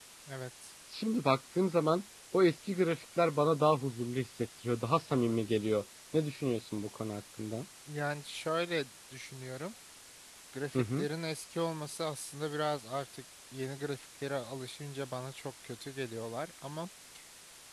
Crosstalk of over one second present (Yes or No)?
No